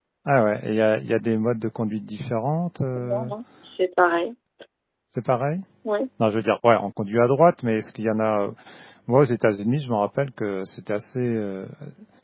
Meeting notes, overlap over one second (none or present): none